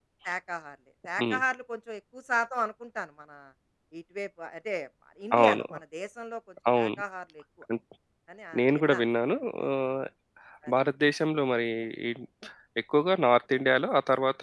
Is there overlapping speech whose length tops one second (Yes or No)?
No